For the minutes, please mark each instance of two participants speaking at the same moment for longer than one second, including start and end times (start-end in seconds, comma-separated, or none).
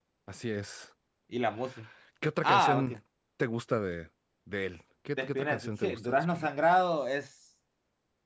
5.2-6.5